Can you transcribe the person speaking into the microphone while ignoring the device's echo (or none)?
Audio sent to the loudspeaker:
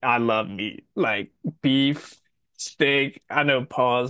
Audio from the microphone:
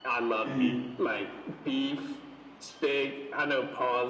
mhm.